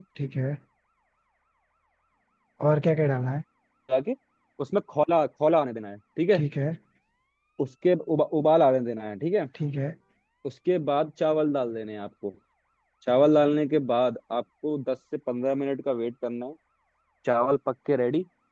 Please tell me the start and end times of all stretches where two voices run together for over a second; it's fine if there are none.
none

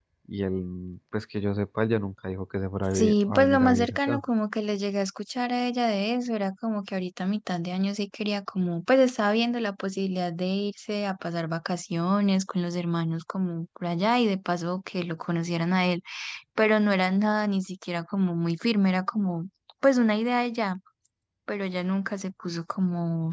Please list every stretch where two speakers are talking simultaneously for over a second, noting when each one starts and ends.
2.9-4.2

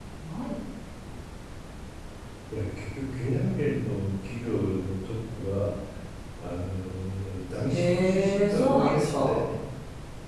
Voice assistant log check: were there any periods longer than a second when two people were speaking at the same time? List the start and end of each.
7.7-9.4

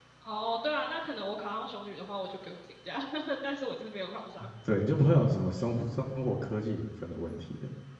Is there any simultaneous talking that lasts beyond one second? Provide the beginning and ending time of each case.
none

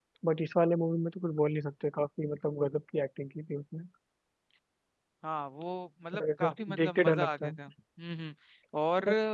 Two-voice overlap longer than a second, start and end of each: 6.1-7.5

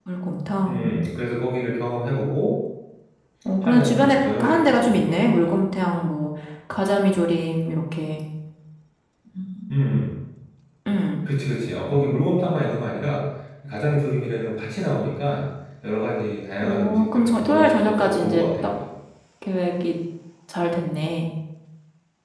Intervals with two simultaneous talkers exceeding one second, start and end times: 3.6-5.5, 16.6-18.7

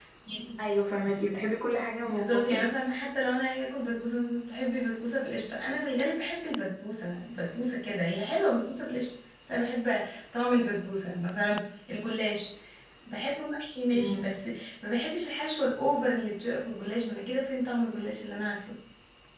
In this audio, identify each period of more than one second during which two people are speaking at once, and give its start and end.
none

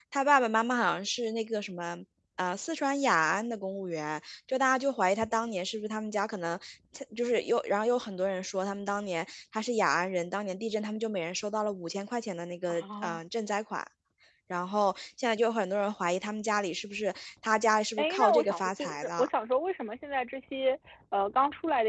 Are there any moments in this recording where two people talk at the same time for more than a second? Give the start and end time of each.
18.0-19.3

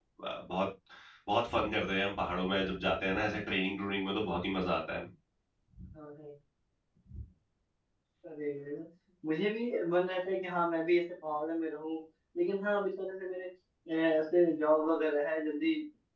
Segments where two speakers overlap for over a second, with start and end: none

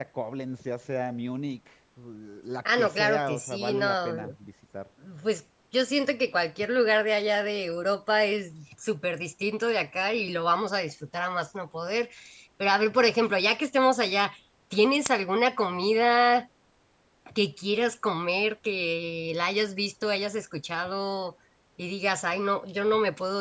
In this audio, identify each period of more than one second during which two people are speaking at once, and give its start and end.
2.8-4.1

